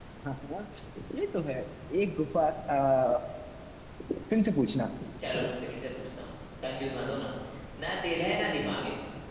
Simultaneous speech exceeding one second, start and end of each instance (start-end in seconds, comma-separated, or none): none